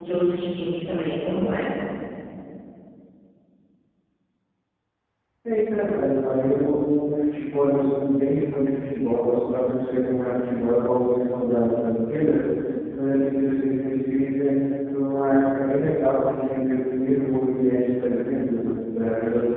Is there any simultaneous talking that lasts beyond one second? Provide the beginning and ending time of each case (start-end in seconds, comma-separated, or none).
none